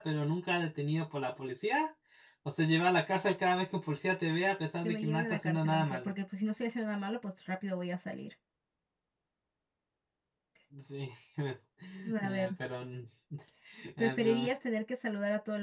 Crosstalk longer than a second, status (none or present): present